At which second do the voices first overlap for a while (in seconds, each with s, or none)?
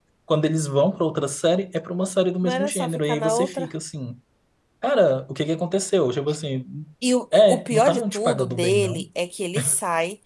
2.4 s